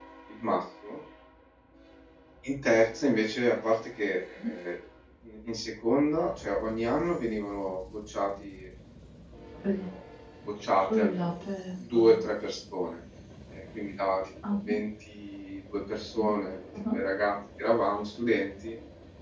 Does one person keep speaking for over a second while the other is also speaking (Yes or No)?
No